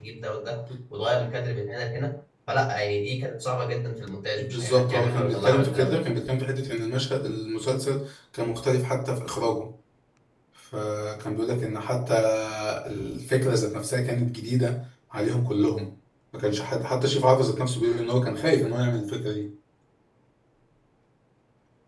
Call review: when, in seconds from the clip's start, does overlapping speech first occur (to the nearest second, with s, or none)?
4 s